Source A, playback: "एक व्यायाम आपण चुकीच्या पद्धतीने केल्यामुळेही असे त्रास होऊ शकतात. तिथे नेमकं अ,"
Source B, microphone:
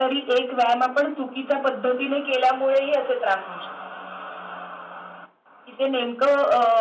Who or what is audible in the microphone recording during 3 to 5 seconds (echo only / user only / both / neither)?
echo only